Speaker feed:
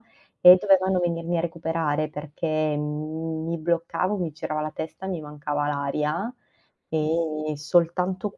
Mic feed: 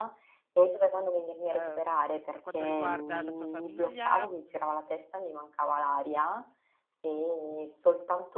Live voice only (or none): Ehm, per quanto riguarda la tua famiglia, mhmm,